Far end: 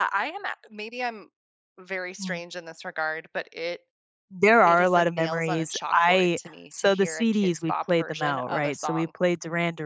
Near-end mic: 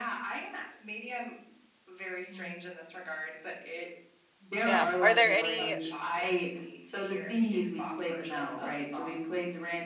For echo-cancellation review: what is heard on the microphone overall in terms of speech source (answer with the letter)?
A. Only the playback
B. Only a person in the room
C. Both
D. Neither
C